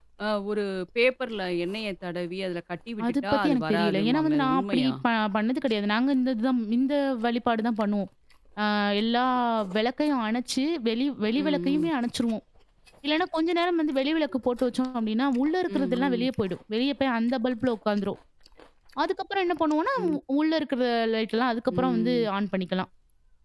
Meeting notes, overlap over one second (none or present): present